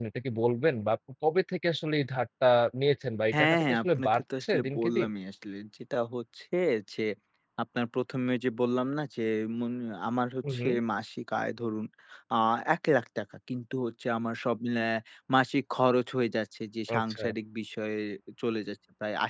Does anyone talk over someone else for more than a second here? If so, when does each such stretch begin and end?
3.4-5.1

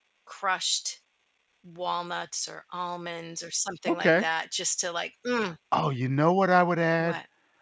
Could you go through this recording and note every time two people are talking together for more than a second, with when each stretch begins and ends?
none

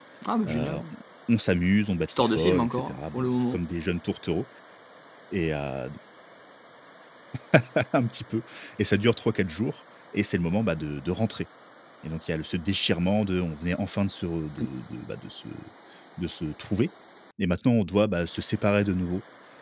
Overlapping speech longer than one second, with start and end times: 2.1-3.6

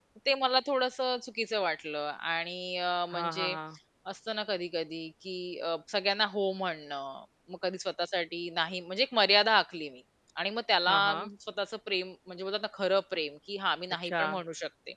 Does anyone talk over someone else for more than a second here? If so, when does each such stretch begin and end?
none

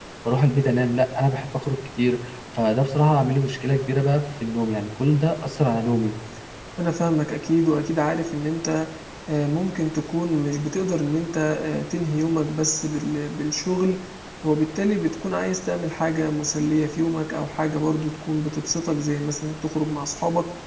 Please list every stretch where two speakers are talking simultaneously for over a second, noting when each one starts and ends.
none

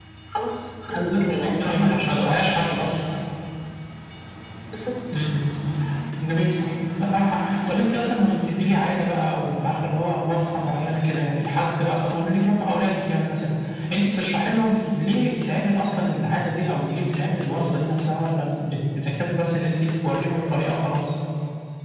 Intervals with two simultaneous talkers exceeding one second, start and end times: 0.9-2.6

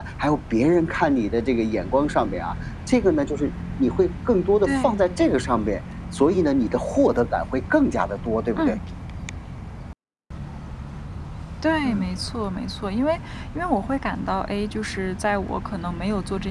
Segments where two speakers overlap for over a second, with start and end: none

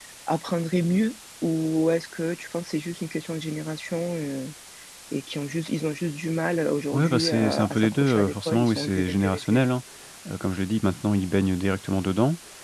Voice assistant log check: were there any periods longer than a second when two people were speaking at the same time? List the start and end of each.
6.9-9.6

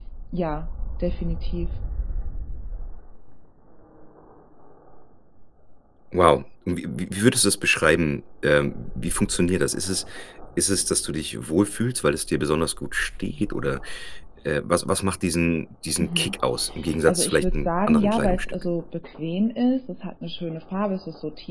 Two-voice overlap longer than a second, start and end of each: 17.1-18.6

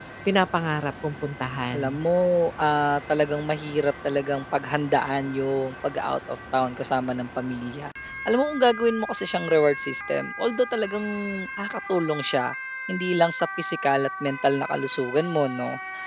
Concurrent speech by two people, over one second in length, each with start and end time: none

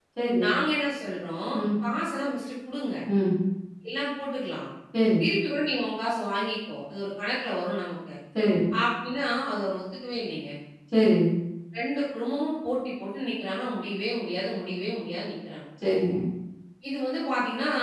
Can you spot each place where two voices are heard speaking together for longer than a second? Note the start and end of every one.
none

